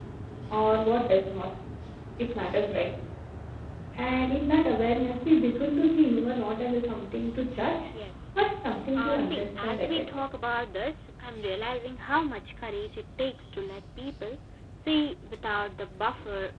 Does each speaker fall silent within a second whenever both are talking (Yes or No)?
No